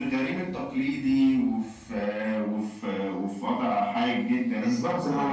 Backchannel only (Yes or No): No